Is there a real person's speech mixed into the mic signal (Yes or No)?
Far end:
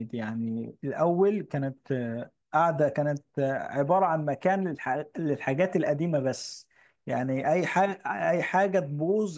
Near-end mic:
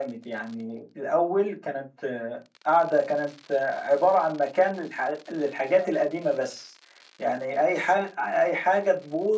No